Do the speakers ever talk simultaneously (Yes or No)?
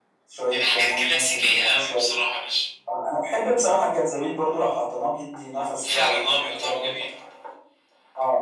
Yes